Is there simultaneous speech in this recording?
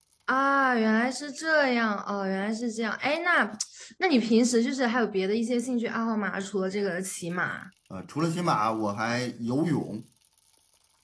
No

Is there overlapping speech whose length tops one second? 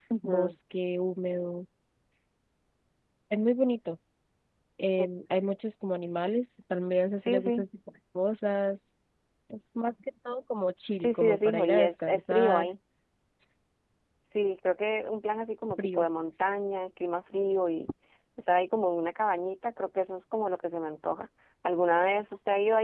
Yes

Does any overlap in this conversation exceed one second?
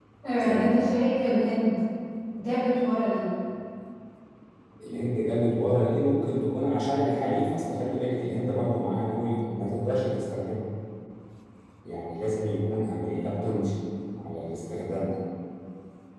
No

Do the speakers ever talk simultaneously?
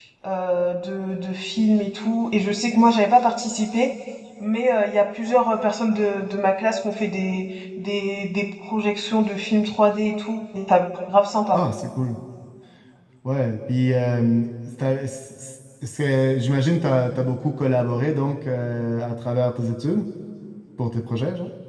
No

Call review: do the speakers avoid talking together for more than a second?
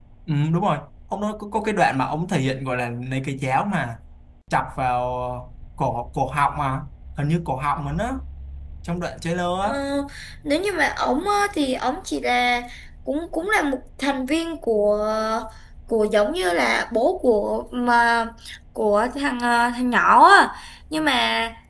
Yes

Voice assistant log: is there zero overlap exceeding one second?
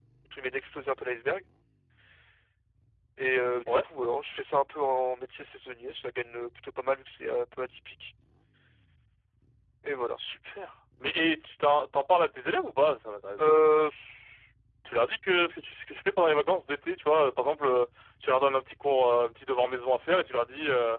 Yes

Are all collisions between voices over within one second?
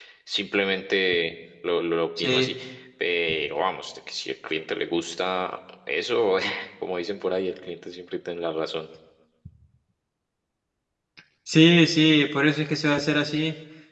Yes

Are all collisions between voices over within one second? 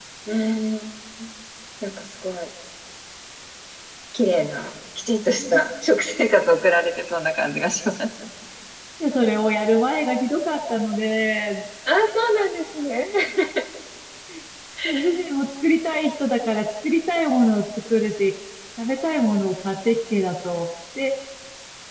Yes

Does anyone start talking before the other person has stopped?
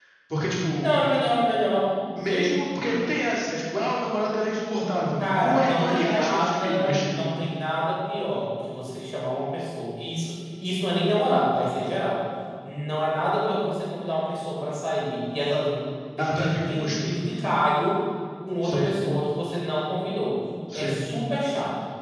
Yes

